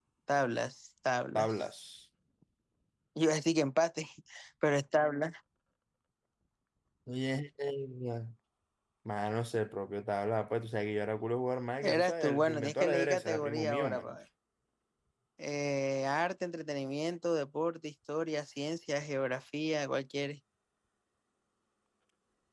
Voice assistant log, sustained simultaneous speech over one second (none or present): present